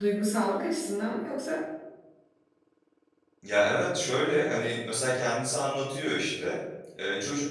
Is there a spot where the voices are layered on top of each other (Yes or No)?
No